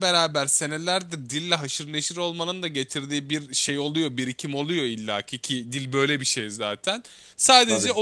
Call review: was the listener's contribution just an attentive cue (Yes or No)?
Yes